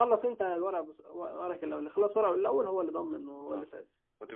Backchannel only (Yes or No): No